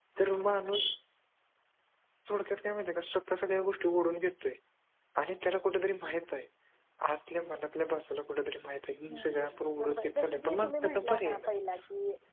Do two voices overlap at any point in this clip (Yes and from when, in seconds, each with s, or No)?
Yes, from 9.0 s